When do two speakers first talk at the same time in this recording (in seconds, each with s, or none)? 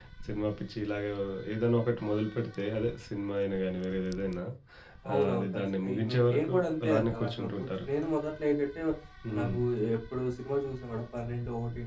5.1 s